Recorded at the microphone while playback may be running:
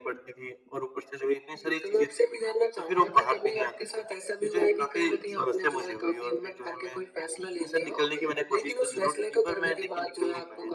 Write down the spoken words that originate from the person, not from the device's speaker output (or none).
none